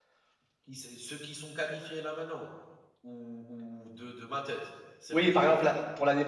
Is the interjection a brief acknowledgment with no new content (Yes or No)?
No